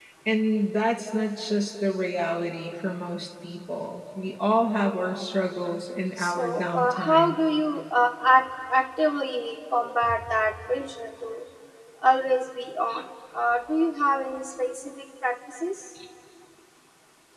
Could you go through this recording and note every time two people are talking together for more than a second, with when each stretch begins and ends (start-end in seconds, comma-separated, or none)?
6.2-7.4